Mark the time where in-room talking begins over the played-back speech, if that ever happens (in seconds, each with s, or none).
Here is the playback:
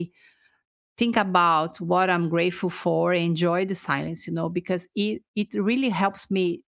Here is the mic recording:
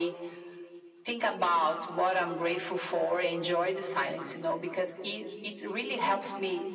none